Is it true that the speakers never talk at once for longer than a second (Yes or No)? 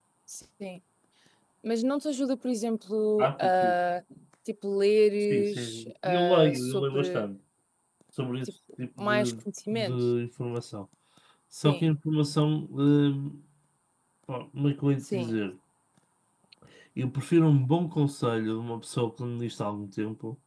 No